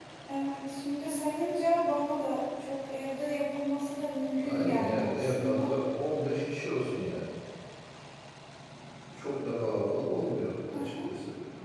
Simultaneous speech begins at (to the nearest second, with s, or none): 4 s